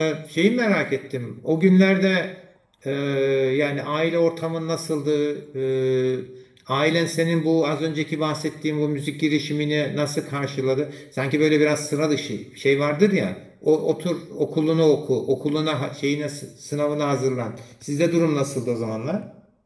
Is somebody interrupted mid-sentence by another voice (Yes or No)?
No